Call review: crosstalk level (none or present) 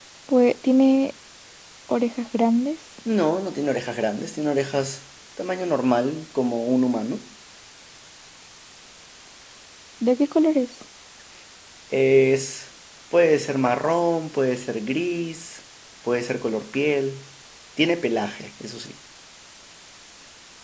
none